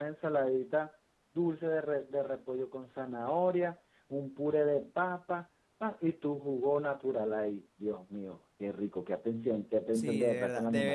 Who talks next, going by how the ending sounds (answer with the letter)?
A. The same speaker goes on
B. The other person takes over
B